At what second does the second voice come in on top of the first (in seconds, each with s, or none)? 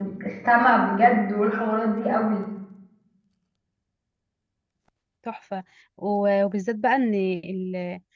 none